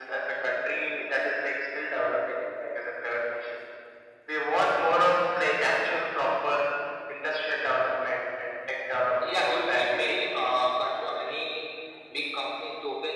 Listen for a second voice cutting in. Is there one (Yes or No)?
Yes